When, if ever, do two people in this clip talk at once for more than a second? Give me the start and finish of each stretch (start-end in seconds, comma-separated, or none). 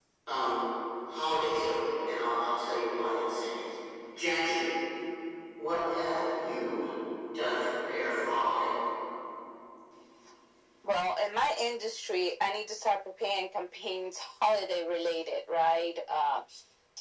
none